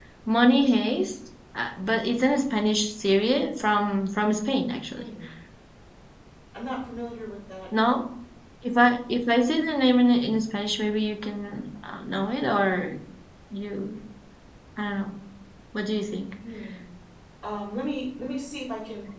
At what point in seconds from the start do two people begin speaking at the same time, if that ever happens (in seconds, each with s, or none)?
none